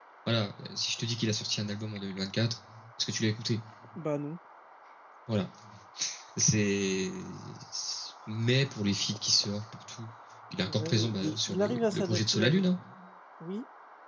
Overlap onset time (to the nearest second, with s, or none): 11 s